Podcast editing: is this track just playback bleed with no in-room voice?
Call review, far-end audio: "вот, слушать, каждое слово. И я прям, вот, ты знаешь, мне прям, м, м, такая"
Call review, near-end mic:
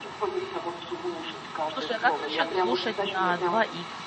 No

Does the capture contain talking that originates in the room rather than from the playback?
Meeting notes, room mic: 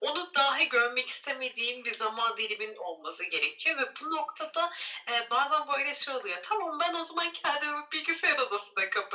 No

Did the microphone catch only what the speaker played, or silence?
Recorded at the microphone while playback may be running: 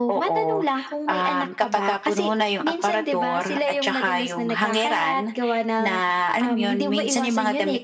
Yes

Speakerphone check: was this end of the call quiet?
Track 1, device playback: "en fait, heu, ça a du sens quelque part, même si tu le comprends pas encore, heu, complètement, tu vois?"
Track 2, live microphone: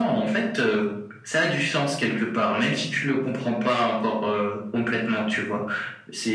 Yes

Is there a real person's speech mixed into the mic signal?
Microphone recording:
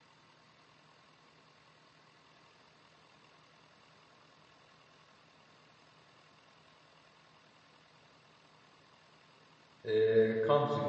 Yes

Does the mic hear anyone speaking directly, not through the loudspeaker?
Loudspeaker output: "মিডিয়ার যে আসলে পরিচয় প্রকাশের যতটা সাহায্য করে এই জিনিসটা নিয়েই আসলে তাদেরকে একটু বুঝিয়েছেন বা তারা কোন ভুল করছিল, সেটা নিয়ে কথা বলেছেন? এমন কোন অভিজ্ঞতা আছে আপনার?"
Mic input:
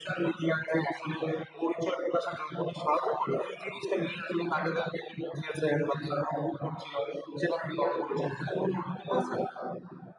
No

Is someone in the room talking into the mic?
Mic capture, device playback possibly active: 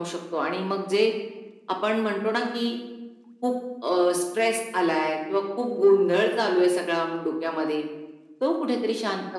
No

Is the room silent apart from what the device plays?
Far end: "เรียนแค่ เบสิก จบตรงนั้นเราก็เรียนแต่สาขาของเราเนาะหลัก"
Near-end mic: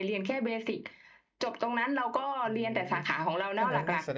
No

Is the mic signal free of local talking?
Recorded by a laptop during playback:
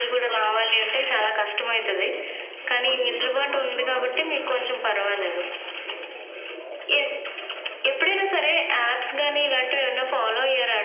No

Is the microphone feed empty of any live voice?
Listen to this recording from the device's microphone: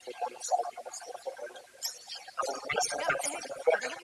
No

